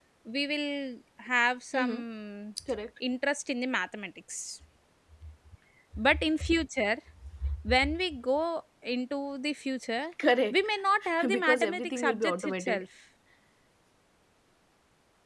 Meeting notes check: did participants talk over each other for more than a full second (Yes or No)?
Yes